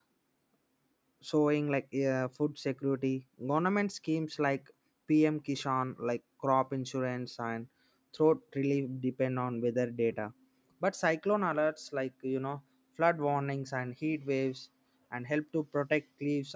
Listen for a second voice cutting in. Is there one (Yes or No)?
No